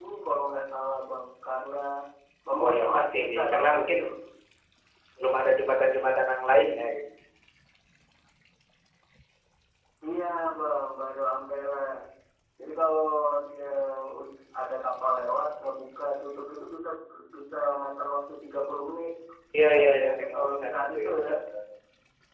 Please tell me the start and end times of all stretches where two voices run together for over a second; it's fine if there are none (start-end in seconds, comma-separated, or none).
2.6-4.0, 19.7-21.3